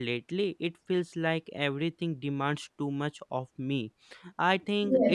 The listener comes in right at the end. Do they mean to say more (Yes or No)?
No